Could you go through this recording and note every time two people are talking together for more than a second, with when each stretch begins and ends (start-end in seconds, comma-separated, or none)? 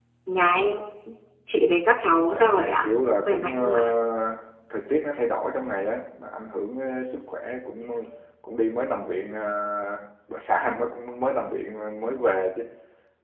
2.3-3.9